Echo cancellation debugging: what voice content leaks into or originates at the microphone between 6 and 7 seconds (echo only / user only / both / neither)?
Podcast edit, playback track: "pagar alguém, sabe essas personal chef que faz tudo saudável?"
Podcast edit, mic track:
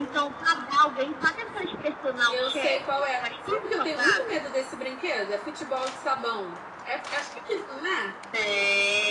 user only